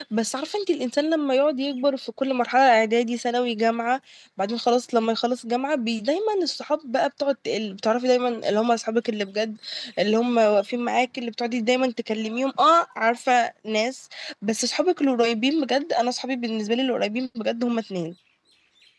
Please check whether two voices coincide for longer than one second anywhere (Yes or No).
No